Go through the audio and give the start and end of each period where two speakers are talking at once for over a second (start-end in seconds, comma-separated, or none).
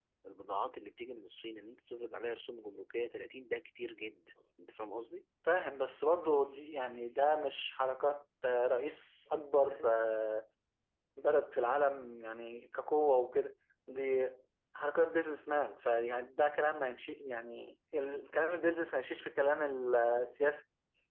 none